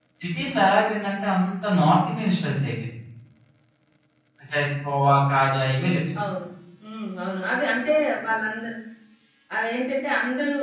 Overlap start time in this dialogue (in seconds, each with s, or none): none